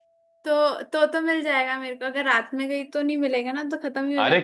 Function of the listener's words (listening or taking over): taking over